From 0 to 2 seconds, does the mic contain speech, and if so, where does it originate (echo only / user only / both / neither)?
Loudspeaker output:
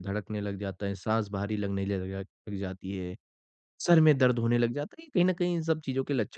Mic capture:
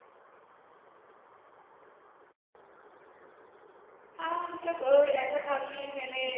neither